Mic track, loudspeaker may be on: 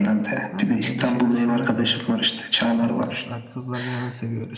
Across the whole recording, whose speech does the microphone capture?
both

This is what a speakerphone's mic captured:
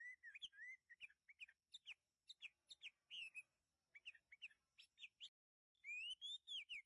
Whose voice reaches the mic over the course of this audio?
neither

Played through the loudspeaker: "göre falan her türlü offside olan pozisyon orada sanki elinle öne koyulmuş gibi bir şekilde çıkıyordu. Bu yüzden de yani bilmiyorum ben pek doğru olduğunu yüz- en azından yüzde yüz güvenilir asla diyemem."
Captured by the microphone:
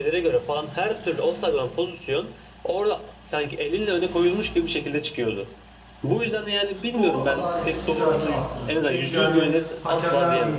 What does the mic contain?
both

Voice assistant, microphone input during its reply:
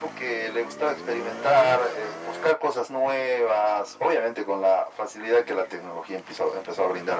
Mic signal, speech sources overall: echo only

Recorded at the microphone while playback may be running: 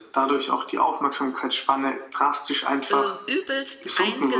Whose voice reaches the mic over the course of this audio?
both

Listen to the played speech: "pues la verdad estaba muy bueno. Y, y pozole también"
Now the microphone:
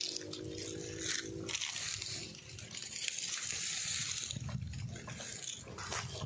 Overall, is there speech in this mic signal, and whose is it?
neither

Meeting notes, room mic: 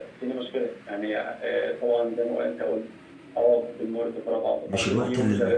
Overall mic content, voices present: both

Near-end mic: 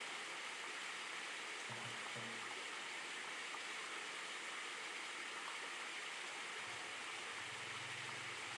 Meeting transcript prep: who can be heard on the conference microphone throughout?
neither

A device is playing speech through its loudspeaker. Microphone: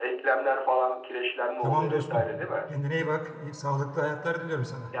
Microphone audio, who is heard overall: both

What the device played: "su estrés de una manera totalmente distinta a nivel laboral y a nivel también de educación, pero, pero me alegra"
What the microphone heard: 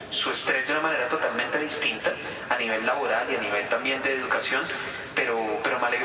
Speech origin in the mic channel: echo only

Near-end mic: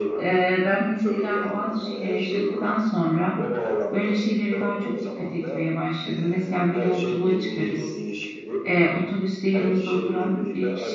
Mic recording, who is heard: both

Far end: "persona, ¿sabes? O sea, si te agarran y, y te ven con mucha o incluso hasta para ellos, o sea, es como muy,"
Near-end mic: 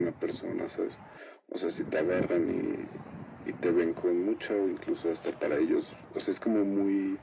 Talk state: echo only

